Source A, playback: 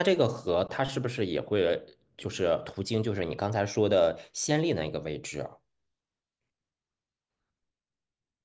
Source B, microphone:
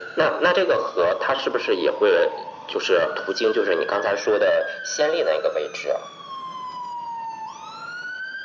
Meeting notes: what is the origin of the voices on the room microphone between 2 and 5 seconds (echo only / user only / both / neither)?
echo only